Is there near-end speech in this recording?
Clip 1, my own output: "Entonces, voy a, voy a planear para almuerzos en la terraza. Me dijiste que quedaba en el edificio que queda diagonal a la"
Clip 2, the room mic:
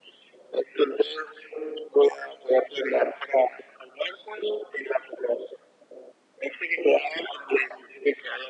No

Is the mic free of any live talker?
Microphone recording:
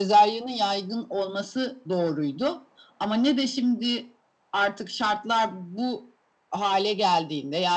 Yes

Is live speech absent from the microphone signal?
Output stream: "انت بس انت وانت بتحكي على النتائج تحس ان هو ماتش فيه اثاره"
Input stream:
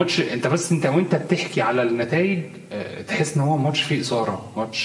Yes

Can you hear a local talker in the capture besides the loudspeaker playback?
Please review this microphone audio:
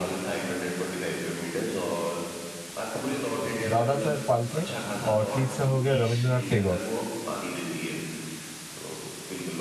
Yes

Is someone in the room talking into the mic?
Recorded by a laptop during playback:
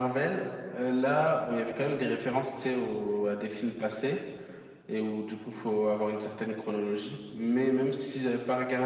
No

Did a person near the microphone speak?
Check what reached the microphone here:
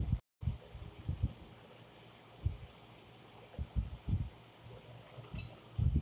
No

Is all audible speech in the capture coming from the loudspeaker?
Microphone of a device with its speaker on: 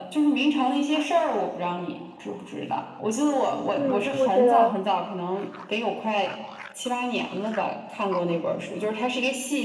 No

